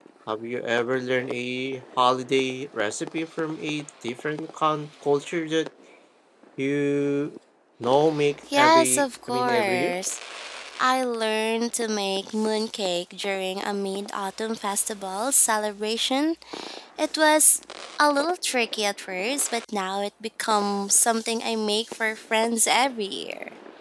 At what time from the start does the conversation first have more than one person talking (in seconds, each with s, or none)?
8.5 s